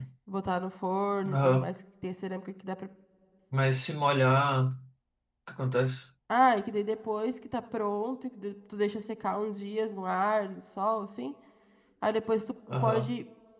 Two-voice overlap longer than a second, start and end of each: none

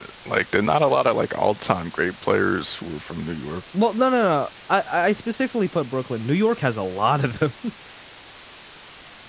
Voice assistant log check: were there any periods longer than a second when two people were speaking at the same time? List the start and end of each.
none

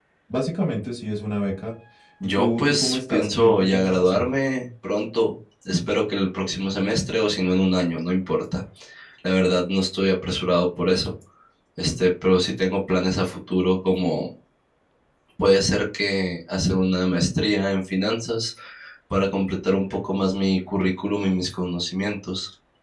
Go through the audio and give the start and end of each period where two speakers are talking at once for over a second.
2.4-4.2

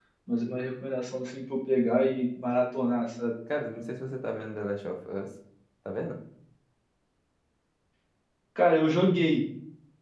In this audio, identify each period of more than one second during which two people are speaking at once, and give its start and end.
none

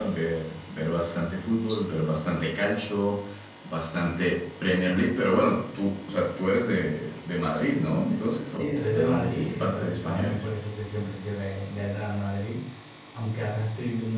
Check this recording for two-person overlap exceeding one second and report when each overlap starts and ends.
7.7-10.4

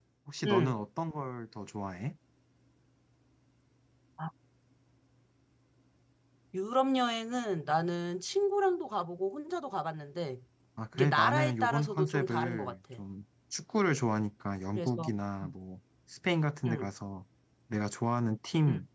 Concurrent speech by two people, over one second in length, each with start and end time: 10.9-12.8

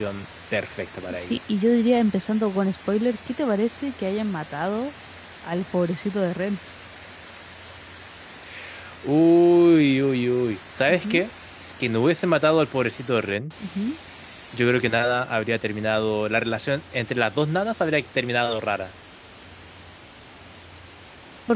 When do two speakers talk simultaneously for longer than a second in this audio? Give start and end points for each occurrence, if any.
none

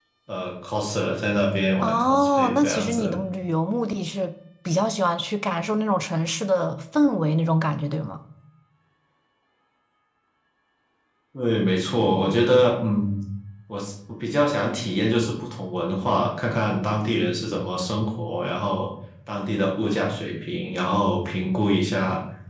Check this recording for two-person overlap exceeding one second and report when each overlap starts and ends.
1.8-3.1

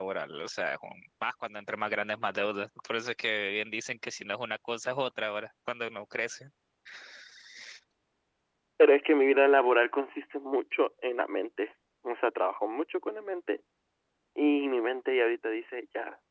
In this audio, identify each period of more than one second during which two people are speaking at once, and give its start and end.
none

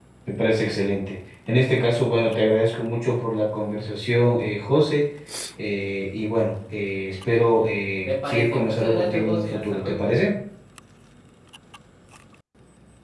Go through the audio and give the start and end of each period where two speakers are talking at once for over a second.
8.0-10.1

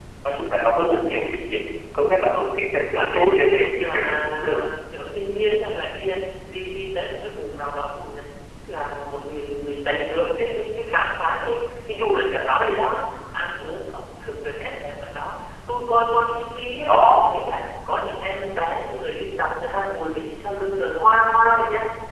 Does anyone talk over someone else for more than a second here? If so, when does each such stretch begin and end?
3.0-4.7

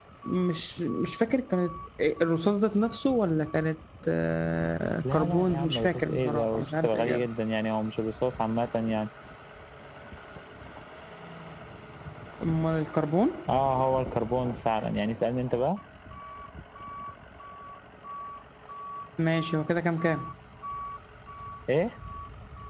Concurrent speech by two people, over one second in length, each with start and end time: 5.0-7.3

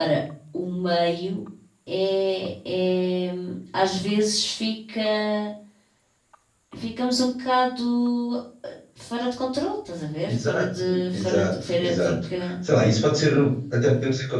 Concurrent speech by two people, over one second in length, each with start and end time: 10.3-12.5

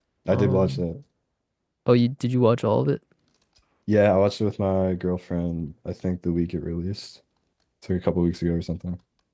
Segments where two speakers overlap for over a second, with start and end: none

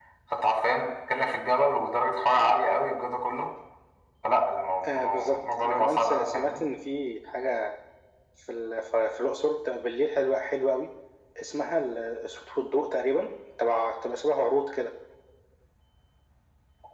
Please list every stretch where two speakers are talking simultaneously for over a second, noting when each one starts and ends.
4.8-6.6

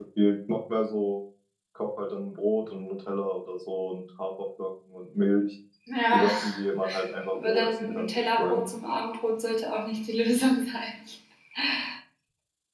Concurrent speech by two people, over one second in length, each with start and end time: 7.3-8.6

